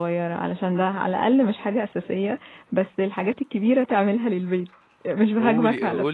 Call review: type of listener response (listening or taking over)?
taking over